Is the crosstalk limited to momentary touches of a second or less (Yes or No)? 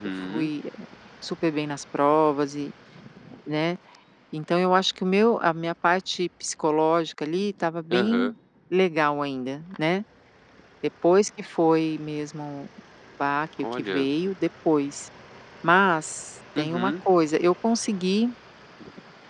Yes